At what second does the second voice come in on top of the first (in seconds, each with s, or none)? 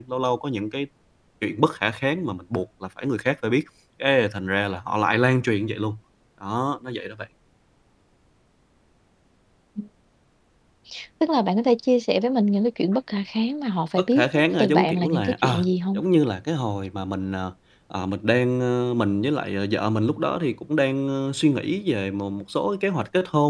14.0 s